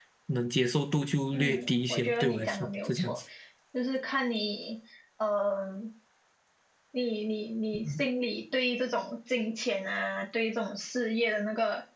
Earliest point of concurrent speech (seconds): 1.3 s

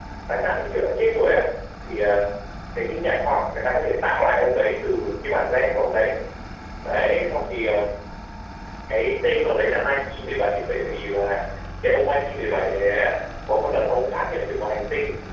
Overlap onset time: none

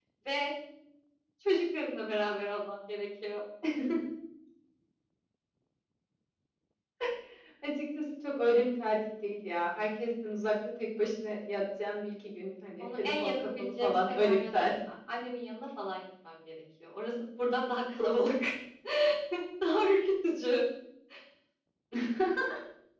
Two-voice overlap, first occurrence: 12.8 s

